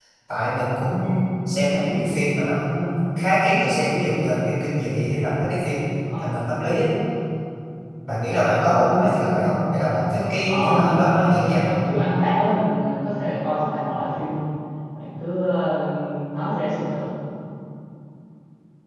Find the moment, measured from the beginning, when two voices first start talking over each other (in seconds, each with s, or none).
10.5 s